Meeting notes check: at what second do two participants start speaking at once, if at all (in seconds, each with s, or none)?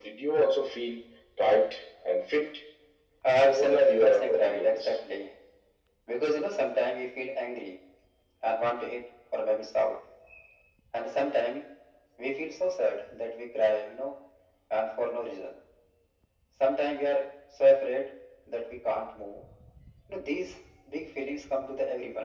3.5 s